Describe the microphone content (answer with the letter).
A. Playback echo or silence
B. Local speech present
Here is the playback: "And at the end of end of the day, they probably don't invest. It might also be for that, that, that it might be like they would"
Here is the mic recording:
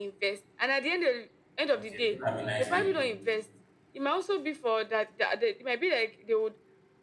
B